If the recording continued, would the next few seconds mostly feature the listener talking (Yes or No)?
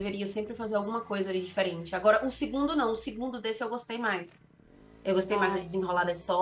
No